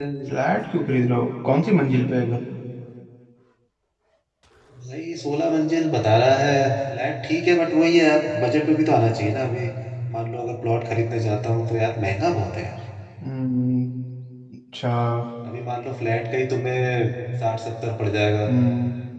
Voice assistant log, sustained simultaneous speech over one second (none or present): none